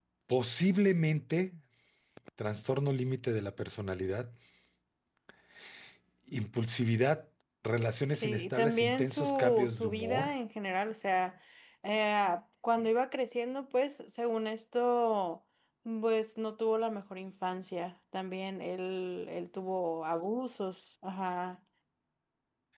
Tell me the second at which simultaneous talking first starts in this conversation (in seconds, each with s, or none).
8.1 s